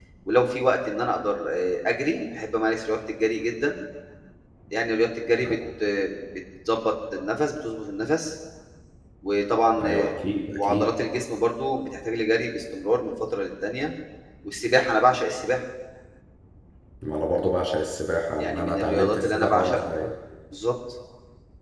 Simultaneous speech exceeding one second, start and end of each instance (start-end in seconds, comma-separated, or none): 18.4-19.9